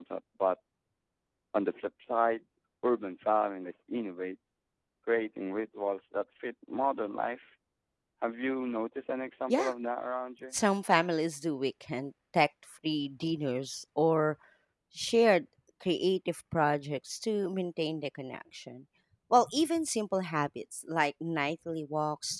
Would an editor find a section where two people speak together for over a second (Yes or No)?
No